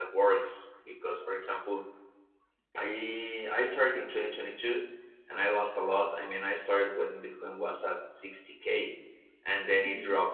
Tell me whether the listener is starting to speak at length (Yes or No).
No